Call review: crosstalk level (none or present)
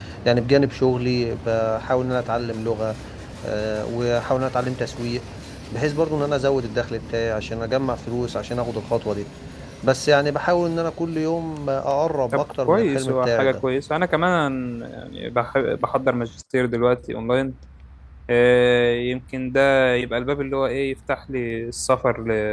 present